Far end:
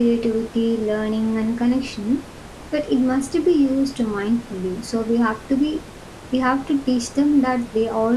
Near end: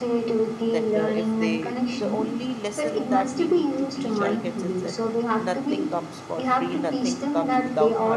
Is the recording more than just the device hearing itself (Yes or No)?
Yes